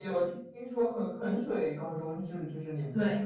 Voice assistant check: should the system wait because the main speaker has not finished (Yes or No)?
No